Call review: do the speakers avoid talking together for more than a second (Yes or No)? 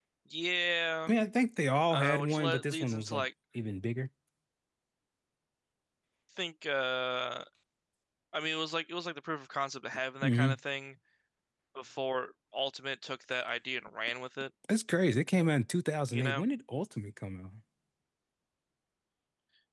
No